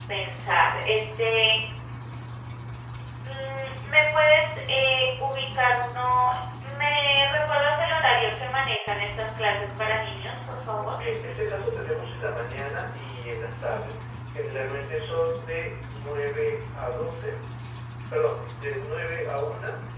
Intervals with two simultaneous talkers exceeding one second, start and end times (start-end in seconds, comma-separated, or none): none